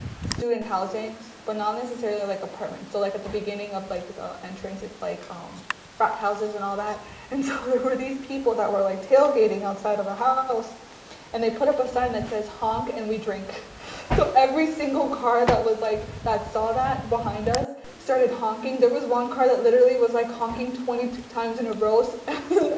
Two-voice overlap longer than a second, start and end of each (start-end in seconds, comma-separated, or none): none